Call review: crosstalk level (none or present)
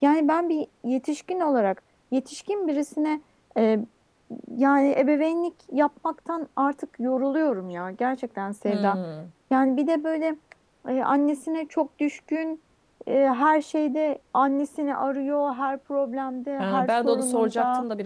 present